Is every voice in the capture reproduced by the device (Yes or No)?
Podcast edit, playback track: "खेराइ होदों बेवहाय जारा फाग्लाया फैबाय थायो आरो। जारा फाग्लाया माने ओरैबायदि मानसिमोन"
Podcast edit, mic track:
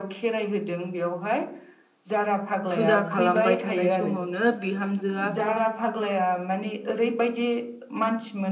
No